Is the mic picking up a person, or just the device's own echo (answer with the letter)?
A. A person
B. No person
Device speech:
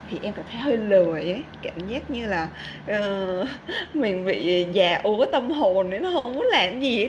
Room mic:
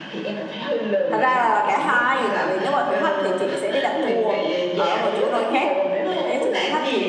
A